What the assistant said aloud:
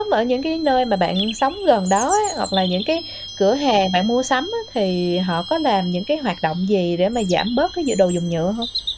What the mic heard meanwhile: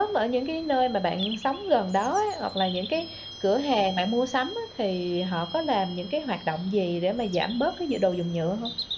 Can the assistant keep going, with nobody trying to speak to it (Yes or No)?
Yes